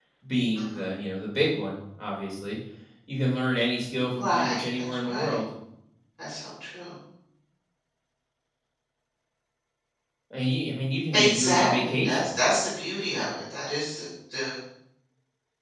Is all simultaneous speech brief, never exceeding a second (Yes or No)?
No